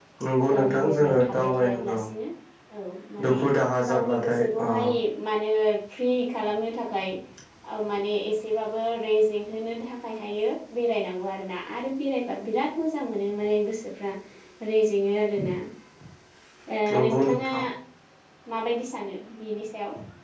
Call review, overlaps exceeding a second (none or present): present